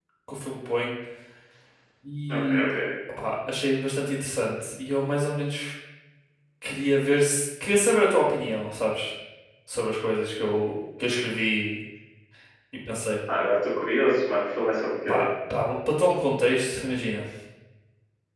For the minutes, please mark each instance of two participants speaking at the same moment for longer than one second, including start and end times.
none

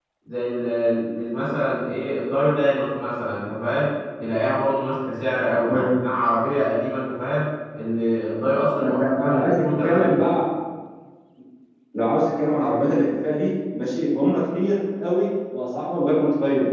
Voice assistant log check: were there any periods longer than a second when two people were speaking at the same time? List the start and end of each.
8.8-10.2

